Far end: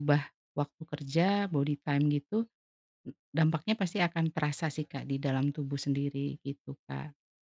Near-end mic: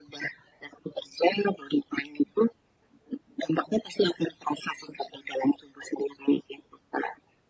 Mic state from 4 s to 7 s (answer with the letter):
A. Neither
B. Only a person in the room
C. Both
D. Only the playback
D